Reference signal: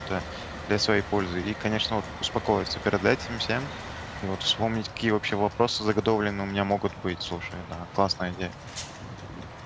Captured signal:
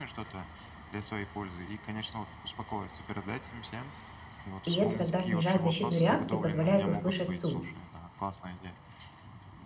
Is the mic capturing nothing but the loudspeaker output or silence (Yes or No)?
No